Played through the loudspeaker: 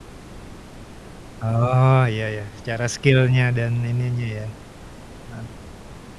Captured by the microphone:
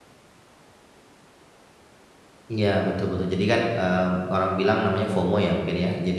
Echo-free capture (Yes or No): Yes